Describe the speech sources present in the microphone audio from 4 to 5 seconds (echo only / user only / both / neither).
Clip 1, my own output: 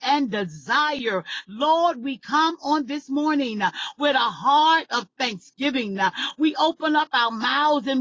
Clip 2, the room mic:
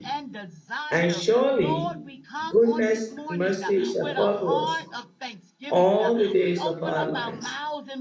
both